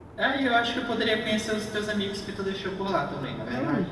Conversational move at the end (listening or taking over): taking over